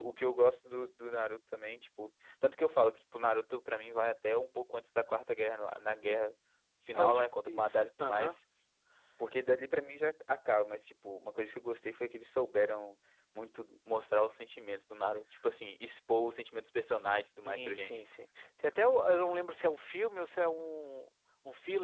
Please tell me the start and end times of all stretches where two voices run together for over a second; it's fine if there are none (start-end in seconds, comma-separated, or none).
6.9-8.3